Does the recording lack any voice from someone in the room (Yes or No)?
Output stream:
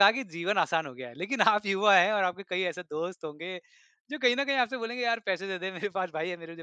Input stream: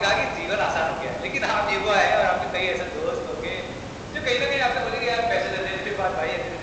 Yes